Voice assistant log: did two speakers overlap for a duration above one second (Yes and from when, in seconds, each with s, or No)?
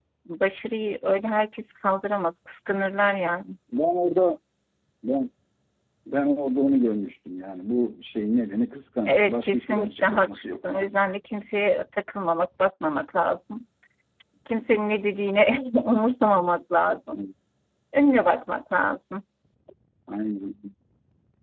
Yes, from 9.1 s